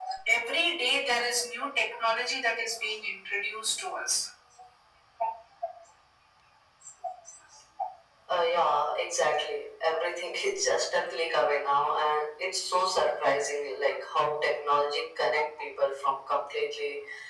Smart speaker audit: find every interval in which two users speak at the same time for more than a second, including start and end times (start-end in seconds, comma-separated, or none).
none